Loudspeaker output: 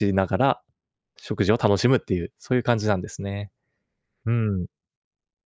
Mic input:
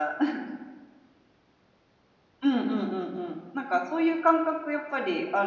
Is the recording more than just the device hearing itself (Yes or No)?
Yes